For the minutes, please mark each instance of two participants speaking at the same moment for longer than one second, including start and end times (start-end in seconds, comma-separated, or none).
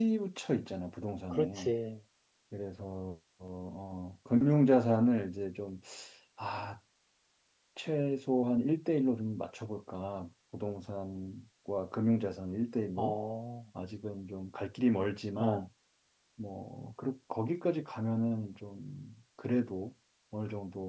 none